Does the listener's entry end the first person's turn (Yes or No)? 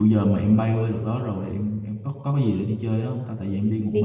Yes